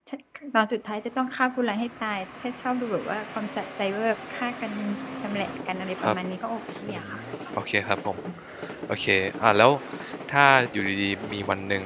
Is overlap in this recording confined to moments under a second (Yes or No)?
Yes